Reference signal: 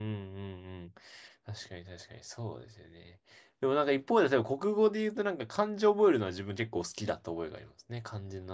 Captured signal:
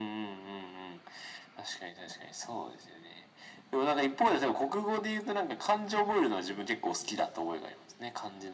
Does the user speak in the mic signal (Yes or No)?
No